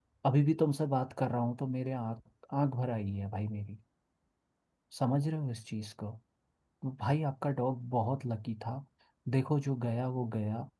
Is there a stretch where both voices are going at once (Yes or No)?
No